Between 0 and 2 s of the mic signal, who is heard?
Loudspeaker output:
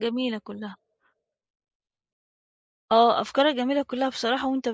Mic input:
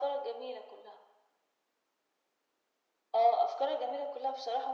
echo only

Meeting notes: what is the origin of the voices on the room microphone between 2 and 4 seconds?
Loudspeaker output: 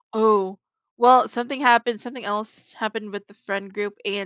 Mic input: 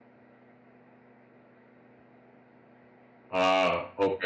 user only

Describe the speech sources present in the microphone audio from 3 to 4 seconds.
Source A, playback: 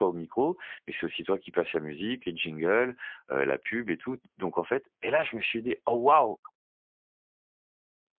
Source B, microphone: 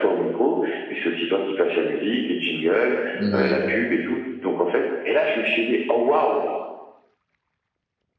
both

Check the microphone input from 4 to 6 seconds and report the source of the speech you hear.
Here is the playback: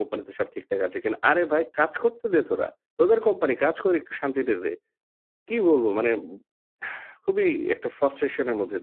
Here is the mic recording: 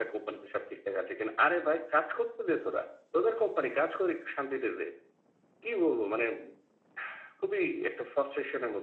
echo only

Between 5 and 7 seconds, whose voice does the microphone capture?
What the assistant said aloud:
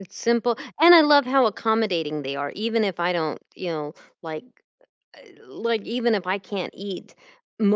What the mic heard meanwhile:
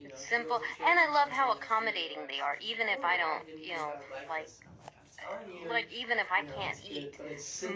both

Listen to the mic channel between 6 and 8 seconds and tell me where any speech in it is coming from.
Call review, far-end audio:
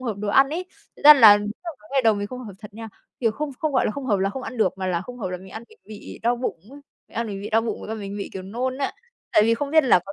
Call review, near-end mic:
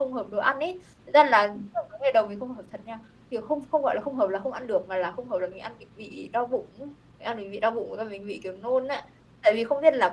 echo only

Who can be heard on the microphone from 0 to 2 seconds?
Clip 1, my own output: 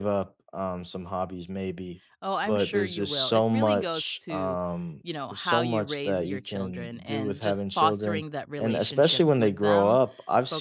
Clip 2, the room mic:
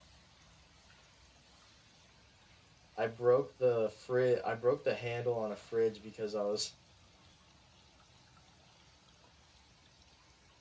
neither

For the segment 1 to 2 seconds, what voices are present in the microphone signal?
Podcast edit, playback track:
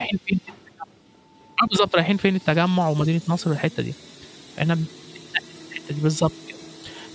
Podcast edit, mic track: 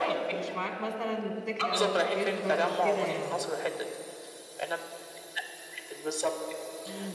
both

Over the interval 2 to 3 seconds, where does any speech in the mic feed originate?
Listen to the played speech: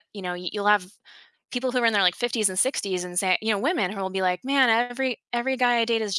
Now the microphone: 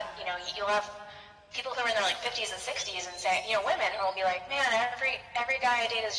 echo only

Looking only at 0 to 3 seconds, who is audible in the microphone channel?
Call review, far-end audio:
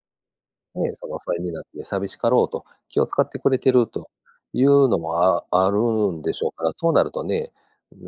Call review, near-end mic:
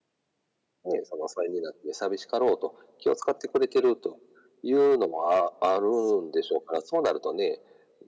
echo only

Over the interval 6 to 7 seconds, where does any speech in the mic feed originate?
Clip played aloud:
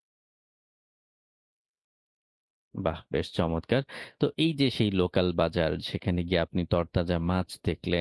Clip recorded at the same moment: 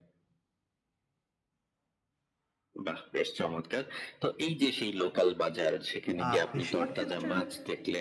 both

